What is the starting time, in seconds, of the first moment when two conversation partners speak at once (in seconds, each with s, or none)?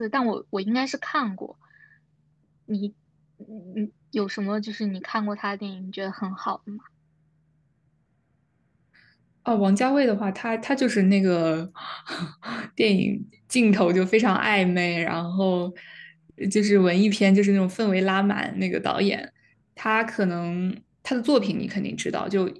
none